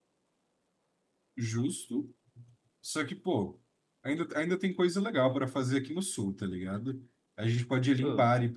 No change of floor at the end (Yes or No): Yes